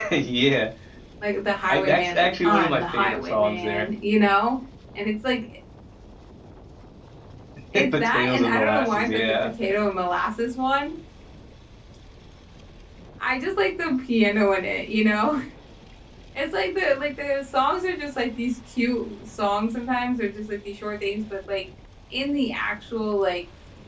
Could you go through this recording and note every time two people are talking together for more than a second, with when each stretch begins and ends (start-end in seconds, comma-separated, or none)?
1.7-3.9, 7.9-9.5